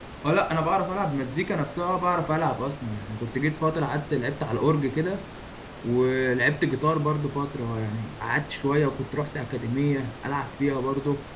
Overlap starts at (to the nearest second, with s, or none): none